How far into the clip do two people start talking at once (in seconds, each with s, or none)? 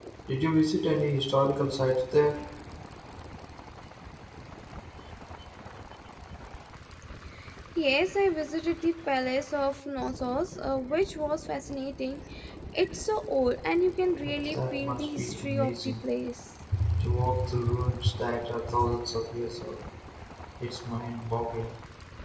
14.5 s